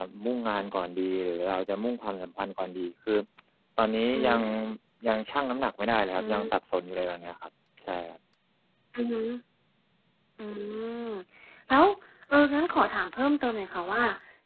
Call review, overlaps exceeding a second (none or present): none